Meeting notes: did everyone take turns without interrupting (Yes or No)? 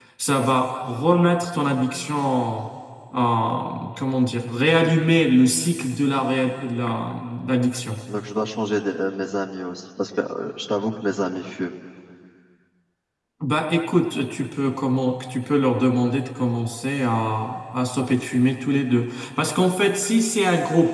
Yes